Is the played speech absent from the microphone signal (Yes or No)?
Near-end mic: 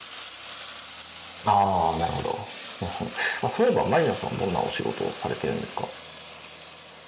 Yes